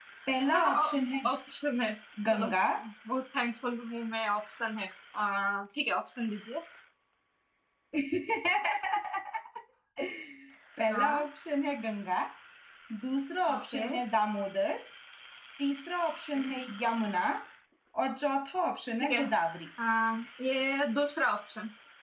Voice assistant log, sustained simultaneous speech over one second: none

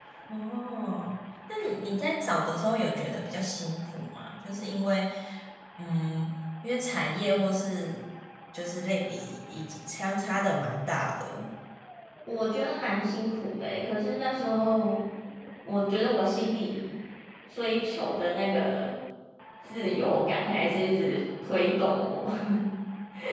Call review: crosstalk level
none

